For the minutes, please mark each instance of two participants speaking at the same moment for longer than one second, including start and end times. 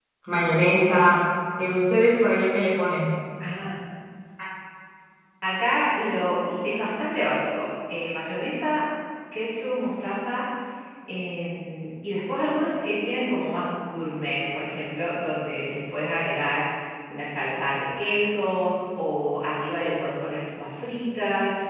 none

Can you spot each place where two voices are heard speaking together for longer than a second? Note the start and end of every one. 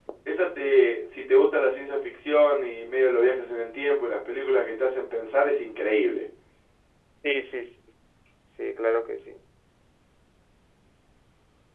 none

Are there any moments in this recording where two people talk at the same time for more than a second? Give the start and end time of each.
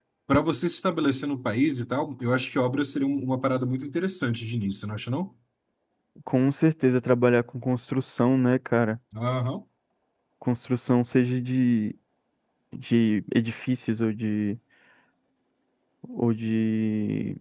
none

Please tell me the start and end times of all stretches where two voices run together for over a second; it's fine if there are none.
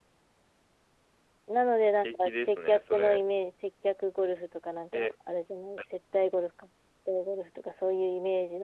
1.8-3.2

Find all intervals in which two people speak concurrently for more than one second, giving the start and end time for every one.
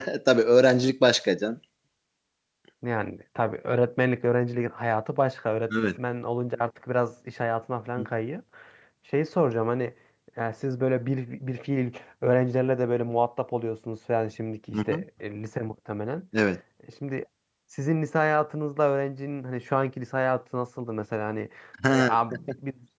none

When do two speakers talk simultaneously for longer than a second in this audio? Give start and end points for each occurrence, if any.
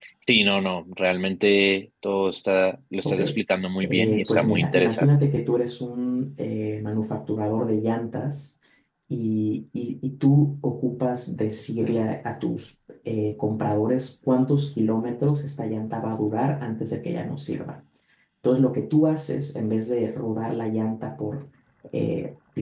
3.8-5.1

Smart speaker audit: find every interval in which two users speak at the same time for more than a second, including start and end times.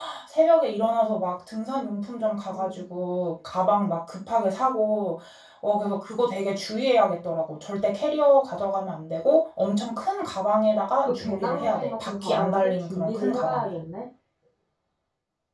11.1-13.7

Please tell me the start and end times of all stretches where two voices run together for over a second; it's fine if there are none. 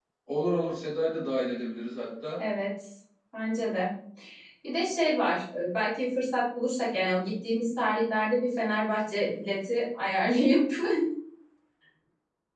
none

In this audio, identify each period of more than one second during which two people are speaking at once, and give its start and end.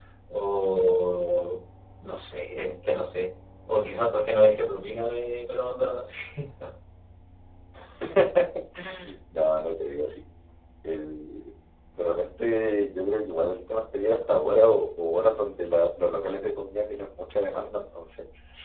none

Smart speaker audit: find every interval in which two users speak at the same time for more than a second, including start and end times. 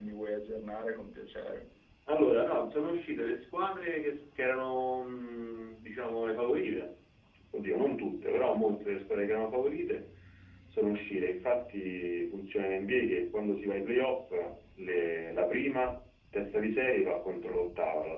none

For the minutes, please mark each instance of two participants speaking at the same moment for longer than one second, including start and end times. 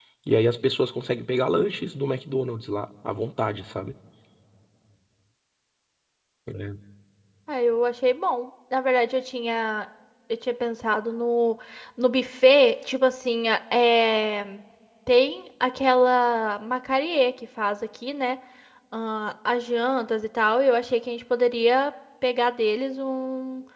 none

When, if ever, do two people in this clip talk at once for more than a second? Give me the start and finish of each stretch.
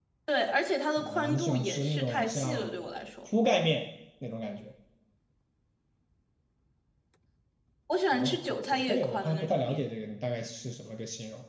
1.0-2.7, 8.1-9.8

